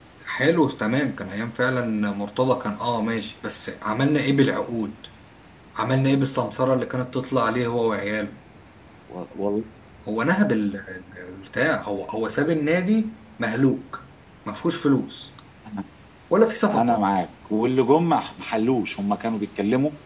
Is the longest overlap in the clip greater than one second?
No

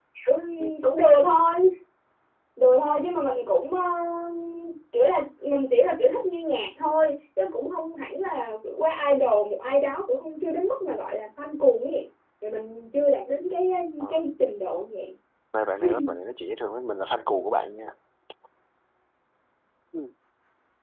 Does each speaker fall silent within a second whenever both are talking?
Yes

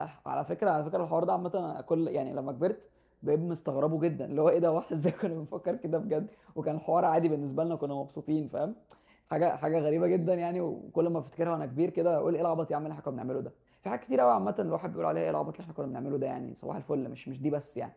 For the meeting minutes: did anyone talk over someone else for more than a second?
No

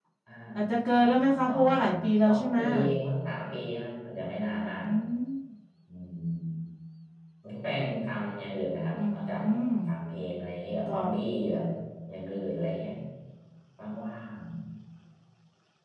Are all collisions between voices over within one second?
No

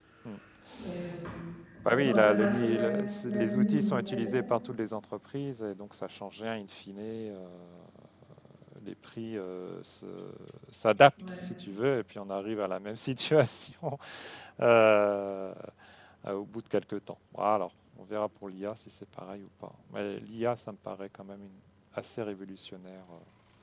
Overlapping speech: Yes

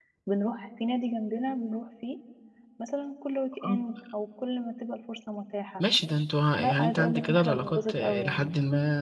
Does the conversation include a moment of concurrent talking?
Yes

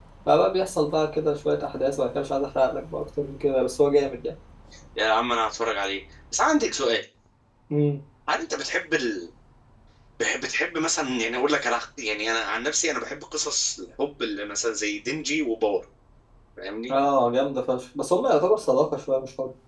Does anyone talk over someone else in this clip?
No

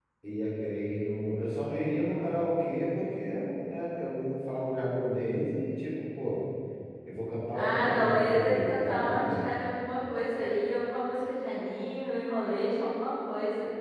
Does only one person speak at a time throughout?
No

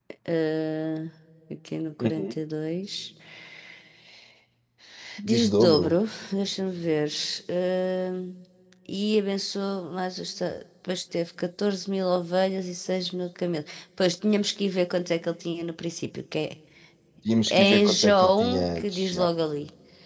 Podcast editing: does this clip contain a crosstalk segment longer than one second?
Yes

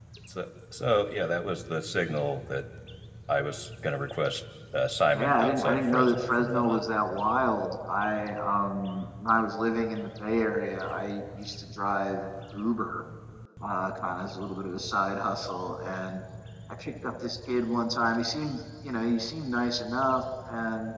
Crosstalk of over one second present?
Yes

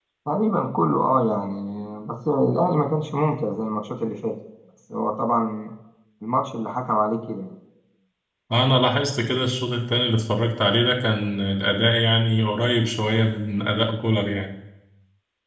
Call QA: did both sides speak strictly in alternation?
Yes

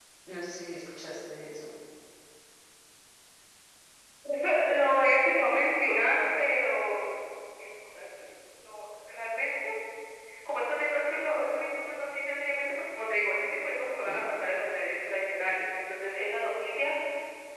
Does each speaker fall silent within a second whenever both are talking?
Yes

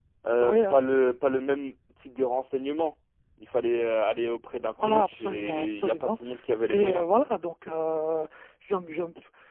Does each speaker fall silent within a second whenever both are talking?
No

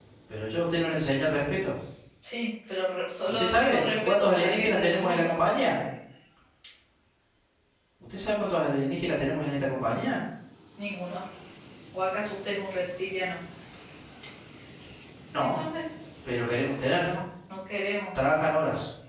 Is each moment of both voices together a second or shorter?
No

